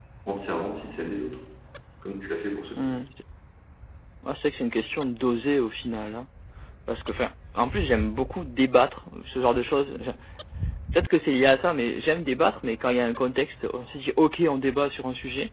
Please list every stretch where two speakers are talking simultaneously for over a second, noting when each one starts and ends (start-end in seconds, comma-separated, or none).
none